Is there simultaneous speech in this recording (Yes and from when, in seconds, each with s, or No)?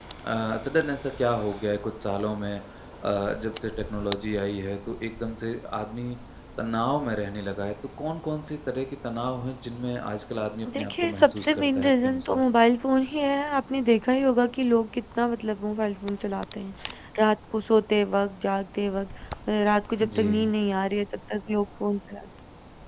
Yes, from 10.7 s